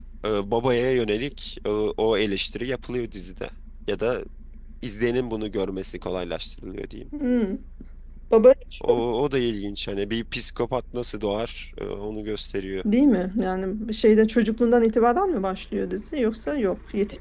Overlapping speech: No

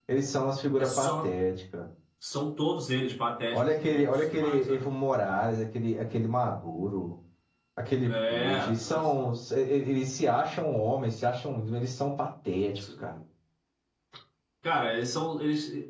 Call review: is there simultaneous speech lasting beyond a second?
Yes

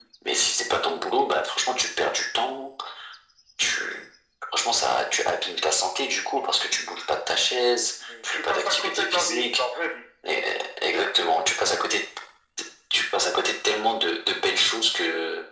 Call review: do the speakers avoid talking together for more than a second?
No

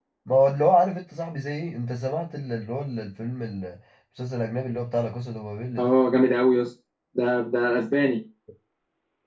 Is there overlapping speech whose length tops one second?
No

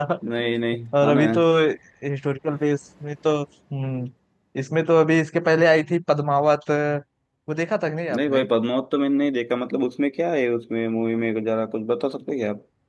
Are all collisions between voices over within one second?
Yes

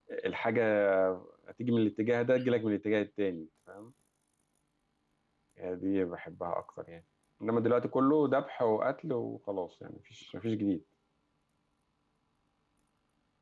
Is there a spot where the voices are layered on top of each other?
No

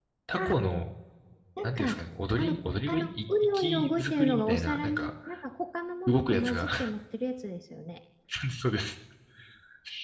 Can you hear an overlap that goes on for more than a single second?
Yes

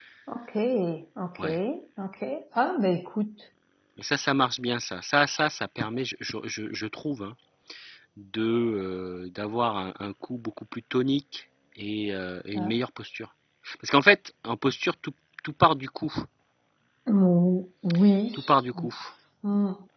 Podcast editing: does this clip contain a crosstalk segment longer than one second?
No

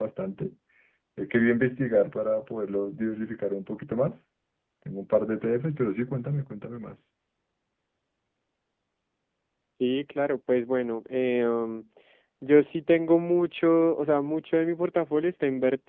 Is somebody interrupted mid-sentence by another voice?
No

